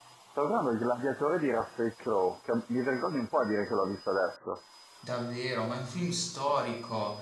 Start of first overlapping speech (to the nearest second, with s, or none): none